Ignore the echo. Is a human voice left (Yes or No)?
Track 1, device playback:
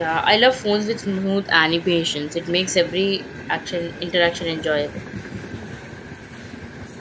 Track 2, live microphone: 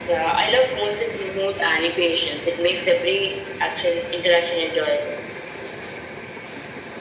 No